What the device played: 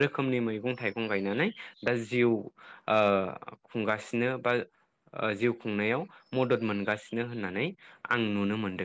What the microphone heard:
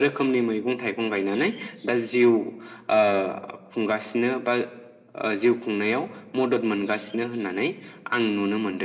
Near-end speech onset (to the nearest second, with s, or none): none